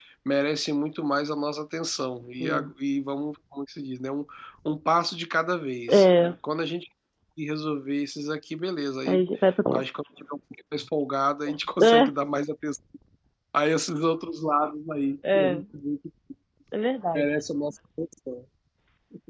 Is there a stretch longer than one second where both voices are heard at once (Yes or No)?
No